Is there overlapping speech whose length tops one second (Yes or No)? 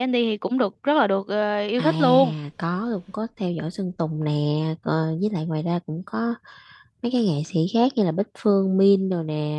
No